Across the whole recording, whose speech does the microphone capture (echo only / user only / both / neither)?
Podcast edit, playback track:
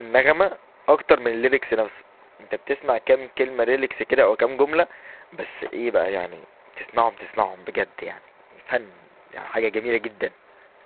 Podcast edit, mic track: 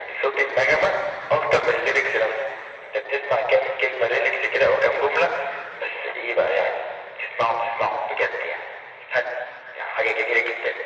echo only